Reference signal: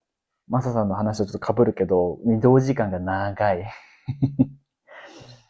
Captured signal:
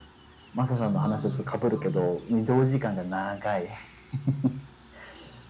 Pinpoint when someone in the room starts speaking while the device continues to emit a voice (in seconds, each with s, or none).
0.7 s